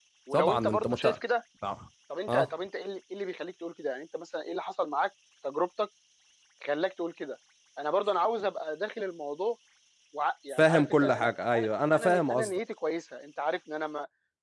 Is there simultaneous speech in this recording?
Yes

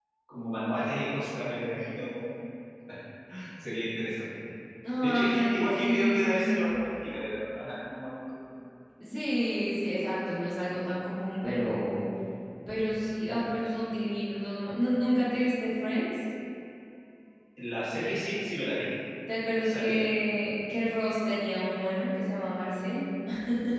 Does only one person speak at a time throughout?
No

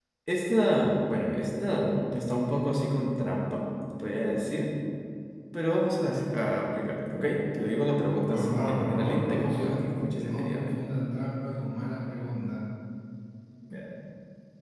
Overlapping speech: Yes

